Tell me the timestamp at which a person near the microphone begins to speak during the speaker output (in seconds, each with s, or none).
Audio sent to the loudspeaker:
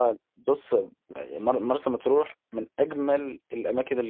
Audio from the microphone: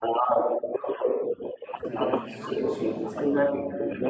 1.7 s